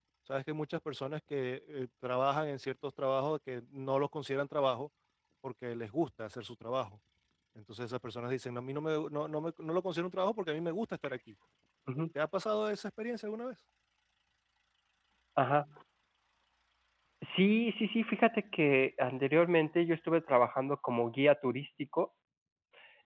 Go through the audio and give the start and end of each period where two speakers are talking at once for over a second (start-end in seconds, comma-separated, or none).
none